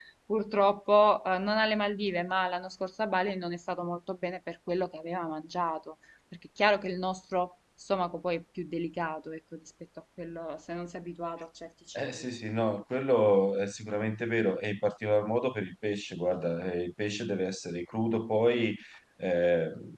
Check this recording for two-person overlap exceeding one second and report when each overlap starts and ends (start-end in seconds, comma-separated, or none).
none